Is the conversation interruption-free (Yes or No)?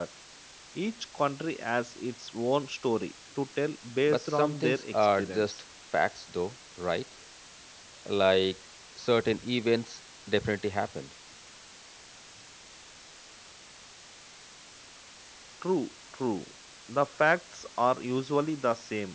No